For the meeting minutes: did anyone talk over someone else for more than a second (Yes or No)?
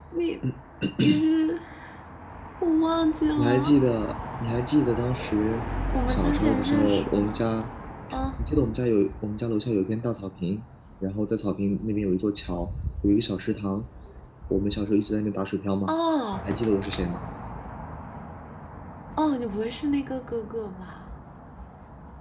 Yes